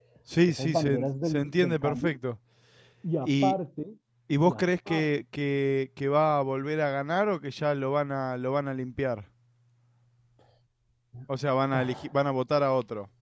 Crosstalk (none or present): present